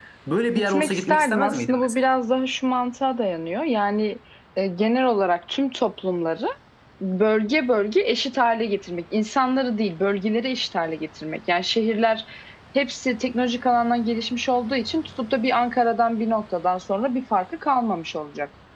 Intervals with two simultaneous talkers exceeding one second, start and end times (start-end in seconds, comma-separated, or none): 0.6-2.1